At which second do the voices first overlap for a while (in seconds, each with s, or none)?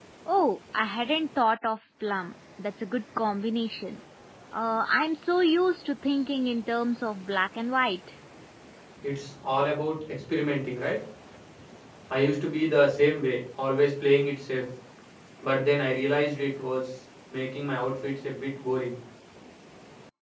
none